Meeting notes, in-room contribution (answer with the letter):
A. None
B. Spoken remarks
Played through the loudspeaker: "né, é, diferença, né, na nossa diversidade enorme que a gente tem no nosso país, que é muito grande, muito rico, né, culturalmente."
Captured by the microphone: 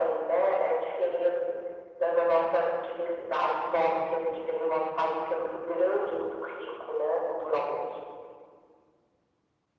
A